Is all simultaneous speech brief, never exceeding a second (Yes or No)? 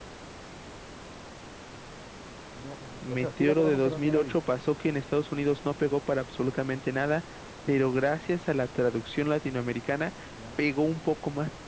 No